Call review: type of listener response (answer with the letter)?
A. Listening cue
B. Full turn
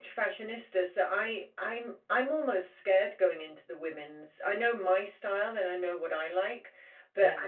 A